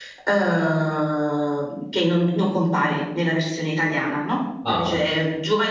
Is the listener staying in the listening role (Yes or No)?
Yes